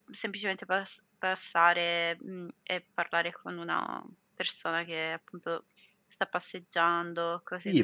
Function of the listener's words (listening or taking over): taking over